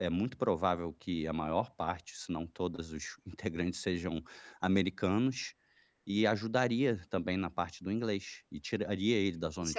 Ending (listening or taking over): taking over